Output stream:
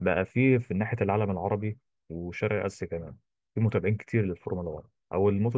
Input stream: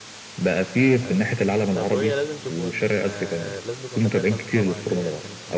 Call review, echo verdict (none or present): present